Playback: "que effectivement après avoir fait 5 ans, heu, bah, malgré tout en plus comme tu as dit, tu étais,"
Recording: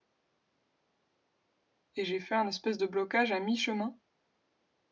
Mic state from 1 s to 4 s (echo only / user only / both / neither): user only